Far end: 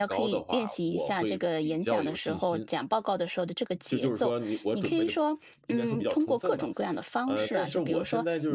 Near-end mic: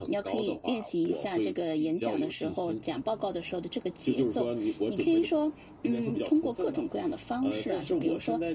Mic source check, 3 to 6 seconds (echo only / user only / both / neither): echo only